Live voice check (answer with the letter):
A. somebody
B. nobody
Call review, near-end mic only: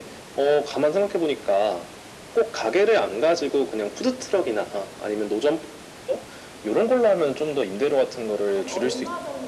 A